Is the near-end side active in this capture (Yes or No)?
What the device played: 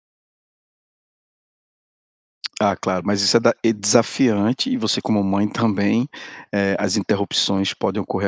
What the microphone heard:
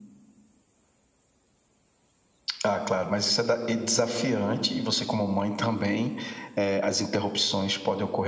No